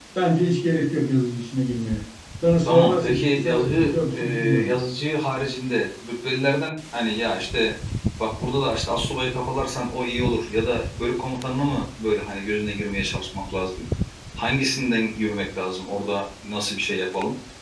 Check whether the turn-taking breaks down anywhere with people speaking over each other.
Yes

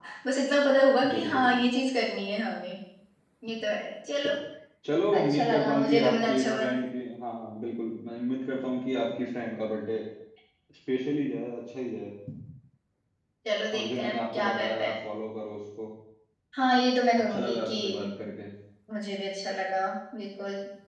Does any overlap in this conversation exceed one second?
Yes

